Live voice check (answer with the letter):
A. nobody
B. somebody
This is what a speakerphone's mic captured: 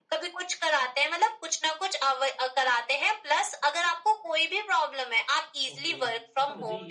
B